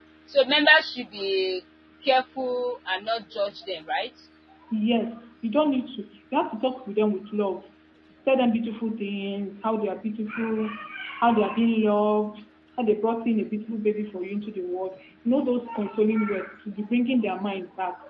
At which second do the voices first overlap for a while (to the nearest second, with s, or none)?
none